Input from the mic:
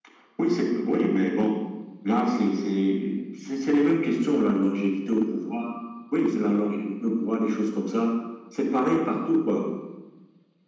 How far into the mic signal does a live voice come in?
none

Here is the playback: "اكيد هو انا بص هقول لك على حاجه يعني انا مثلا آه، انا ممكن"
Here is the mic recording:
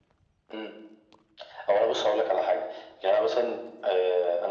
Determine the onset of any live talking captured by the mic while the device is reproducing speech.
none

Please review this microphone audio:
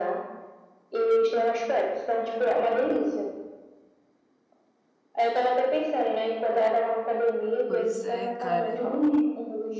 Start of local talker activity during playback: 8 s

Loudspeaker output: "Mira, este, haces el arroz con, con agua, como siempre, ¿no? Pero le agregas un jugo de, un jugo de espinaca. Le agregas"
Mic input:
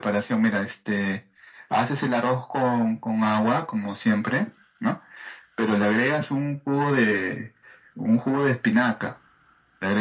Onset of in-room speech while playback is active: none

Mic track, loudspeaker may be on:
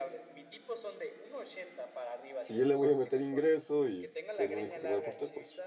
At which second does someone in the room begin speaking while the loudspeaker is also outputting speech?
2 s

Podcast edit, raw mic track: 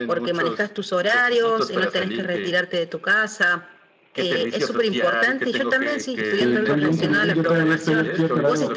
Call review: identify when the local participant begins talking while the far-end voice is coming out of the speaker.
6 s

